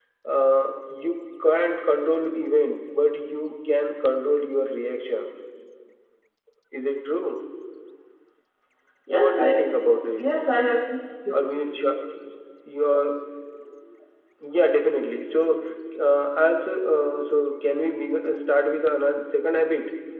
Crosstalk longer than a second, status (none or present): none